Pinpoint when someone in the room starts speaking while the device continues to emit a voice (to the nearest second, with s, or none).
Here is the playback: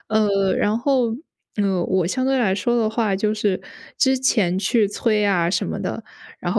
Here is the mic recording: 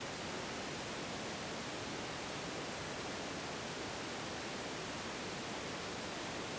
none